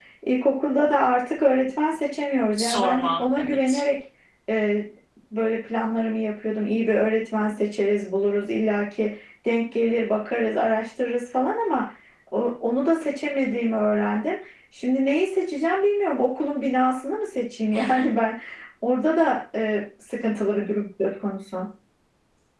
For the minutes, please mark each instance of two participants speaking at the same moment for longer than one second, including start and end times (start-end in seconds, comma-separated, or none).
2.6-3.8